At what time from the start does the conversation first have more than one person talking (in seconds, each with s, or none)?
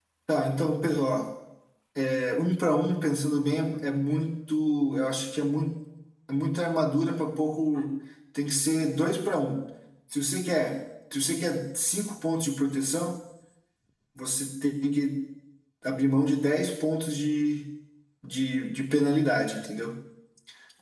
none